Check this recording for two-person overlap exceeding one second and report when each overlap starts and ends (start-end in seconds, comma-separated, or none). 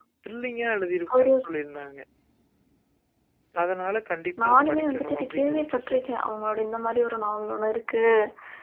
4.4-6.0